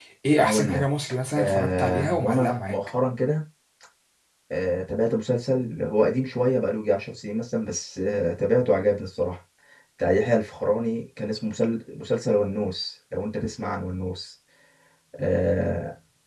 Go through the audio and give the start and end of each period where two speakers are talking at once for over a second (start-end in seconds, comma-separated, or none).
1.4-2.8